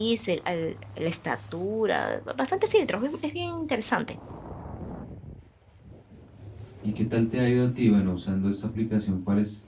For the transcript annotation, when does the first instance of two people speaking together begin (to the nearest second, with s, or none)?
none